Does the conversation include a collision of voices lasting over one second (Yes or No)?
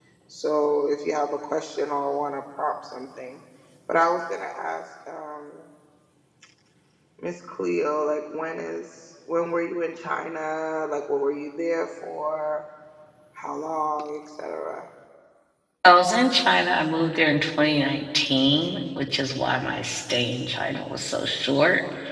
No